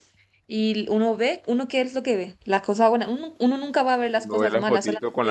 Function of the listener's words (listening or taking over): taking over